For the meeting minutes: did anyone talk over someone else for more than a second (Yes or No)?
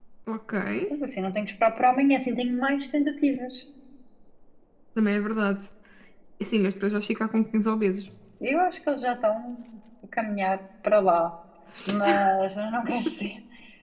No